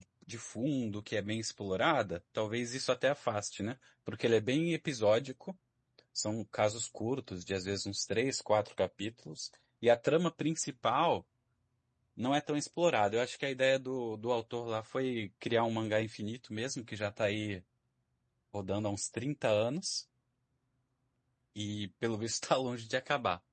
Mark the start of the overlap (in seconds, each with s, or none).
none